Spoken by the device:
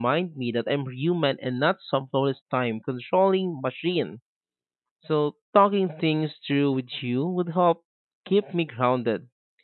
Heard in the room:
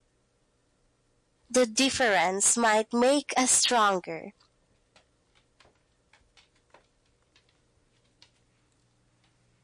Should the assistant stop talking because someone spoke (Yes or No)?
Yes